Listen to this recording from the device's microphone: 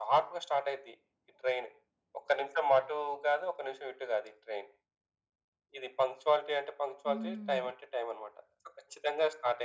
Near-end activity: present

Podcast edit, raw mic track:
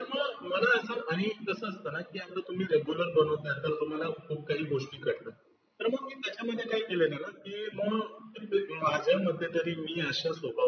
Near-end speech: none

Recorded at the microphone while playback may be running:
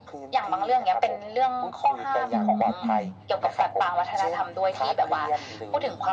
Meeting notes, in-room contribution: present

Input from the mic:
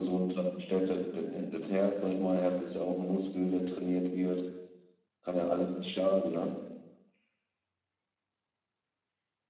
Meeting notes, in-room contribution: none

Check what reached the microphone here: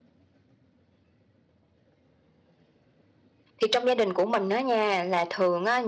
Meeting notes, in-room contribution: present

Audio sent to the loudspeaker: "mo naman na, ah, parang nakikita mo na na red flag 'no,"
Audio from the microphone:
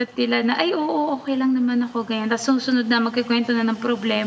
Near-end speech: present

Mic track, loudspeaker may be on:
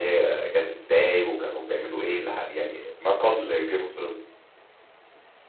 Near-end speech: none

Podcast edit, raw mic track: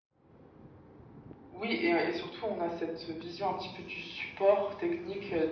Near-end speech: none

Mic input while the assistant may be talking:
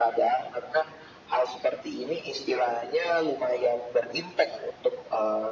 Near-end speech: none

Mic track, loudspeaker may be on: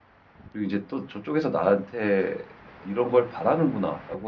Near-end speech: present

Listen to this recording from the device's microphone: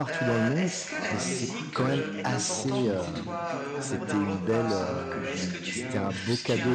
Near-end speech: present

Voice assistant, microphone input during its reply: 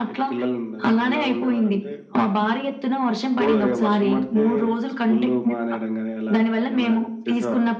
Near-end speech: none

